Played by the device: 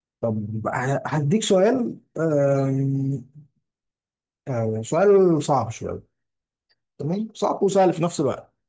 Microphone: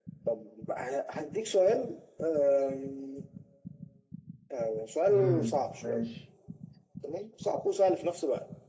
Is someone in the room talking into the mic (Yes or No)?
Yes